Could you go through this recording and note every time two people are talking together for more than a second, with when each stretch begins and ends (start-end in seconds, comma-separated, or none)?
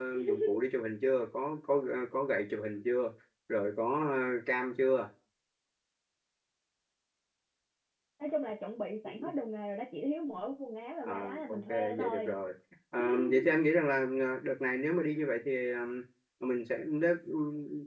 11.0-12.4